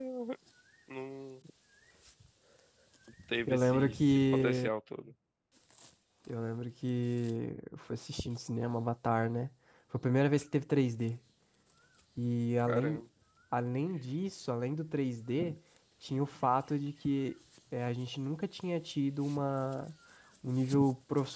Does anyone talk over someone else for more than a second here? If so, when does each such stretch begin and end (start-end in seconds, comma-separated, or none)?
3.5-4.7